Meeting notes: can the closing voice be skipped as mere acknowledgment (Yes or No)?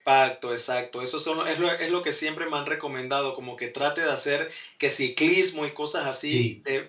Yes